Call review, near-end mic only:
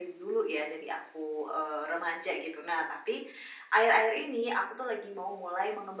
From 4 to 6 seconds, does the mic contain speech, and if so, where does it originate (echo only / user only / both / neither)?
echo only